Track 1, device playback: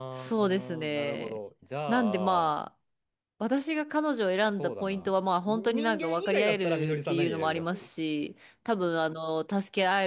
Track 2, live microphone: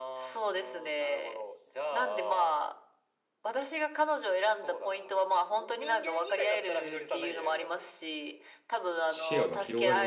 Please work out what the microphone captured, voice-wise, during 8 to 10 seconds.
both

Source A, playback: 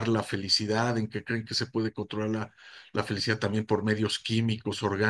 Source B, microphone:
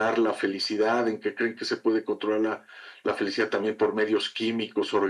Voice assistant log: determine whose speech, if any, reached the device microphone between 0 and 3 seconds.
echo only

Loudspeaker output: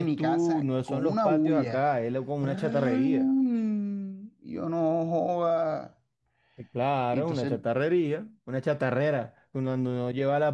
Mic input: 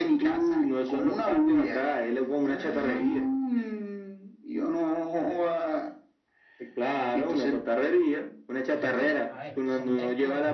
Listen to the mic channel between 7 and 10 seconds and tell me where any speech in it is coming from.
both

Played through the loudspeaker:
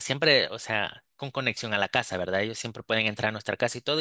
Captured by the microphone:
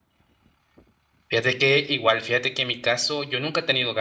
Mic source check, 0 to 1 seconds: neither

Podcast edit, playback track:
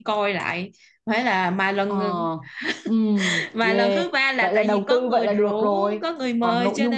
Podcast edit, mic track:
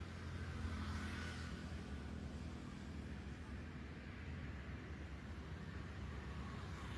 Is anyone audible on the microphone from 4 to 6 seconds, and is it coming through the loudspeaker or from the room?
neither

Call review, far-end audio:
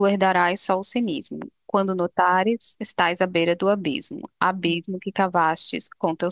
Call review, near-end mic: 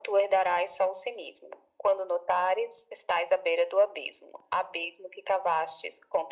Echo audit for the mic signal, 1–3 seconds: echo only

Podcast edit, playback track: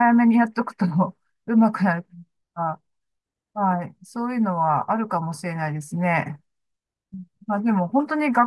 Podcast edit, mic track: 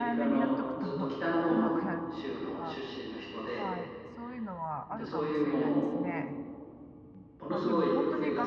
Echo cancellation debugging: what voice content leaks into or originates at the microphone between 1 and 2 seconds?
both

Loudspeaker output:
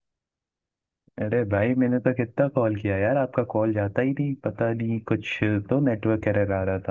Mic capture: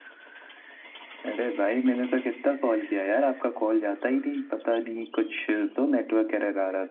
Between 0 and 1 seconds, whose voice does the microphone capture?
neither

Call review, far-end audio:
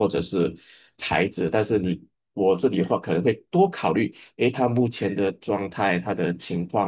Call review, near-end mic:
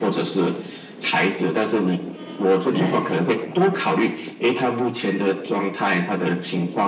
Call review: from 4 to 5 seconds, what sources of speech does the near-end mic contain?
echo only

